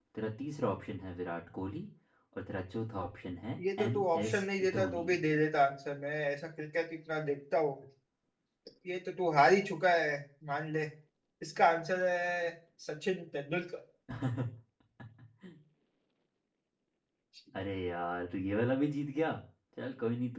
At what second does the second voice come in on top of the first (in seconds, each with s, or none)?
3.6 s